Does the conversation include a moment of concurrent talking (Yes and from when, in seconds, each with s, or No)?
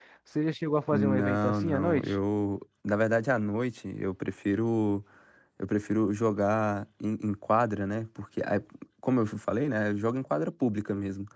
Yes, from 0.9 s